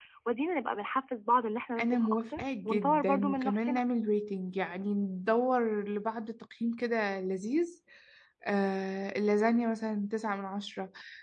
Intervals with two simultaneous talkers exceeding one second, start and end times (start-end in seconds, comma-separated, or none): 1.8-3.8